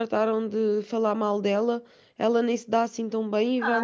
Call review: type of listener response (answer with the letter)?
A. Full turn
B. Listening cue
A